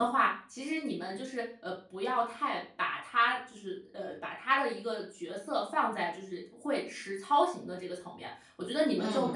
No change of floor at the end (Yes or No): Yes